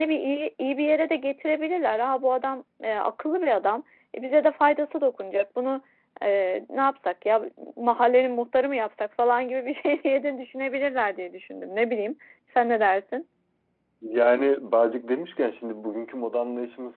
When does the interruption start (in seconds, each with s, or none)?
none